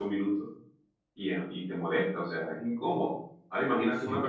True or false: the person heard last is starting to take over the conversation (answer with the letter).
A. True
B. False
B